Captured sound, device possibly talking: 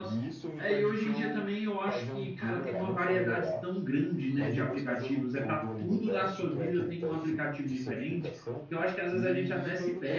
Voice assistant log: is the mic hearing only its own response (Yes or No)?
No